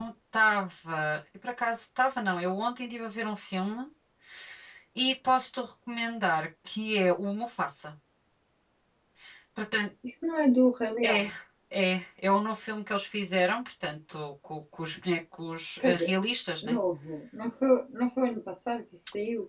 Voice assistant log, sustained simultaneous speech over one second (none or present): none